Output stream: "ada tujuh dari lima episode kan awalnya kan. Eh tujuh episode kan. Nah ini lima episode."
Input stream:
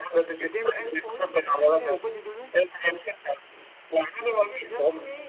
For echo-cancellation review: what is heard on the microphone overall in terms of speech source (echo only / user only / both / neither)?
both